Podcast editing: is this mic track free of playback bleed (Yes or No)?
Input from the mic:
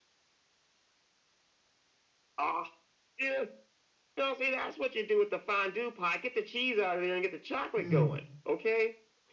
No